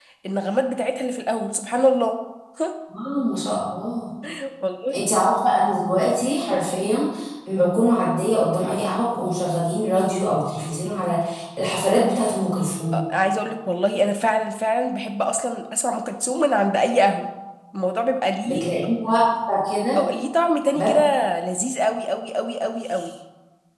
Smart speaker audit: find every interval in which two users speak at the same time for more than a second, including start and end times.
none

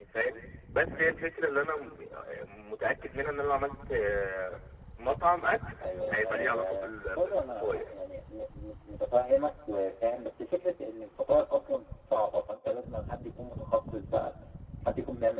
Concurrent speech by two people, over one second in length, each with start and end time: 6.1-7.9

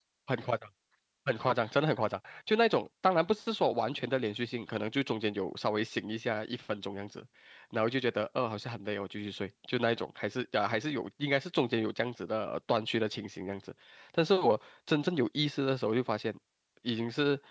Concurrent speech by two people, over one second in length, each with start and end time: none

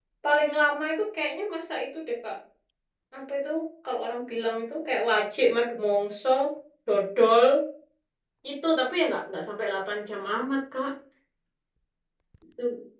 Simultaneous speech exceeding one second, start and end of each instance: none

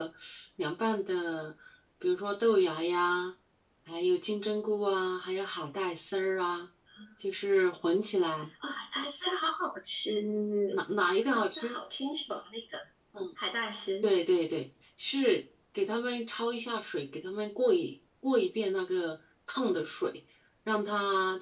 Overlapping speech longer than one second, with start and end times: none

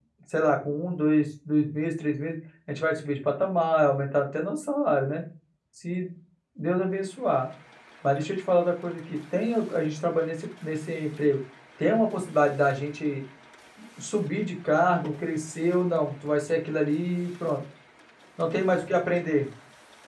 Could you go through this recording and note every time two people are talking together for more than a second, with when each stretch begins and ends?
none

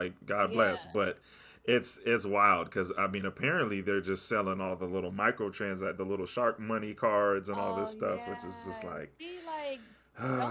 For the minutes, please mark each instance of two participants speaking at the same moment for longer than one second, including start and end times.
7.5-9.0

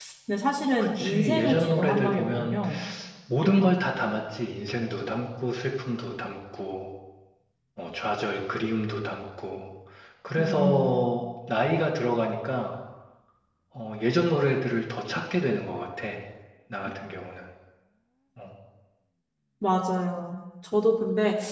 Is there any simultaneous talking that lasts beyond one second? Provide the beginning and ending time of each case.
0.8-2.6

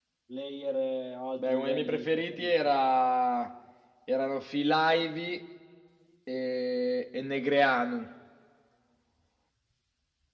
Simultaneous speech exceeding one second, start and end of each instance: 1.4-2.7

